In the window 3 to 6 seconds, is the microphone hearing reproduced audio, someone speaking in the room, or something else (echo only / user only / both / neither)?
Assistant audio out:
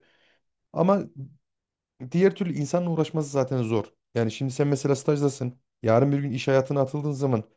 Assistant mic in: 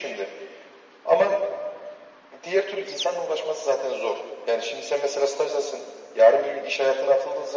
echo only